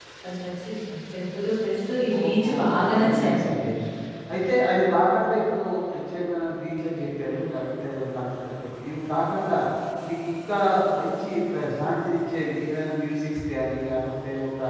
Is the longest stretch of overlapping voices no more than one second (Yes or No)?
No